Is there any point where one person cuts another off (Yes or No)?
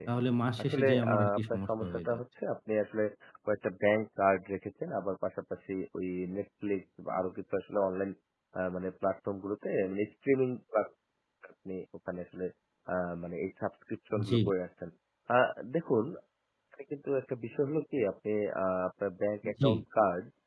Yes